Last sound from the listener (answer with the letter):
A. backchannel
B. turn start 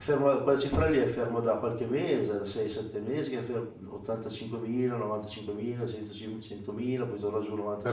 B